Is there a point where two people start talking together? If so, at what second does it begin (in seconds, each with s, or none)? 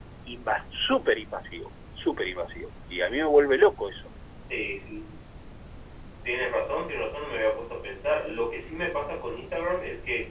none